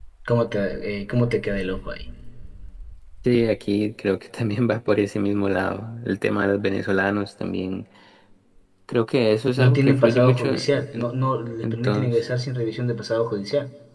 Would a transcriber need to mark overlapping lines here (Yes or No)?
Yes